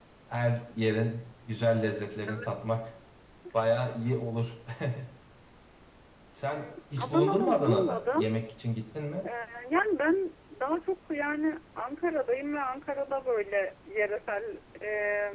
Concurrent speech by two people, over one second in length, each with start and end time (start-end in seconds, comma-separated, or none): 6.5-8.3